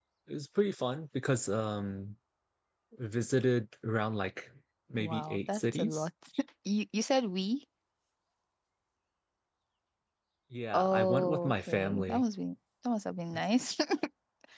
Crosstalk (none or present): present